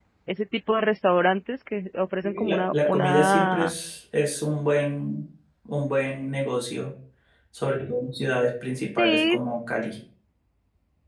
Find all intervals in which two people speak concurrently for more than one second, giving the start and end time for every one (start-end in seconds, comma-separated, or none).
2.2-3.8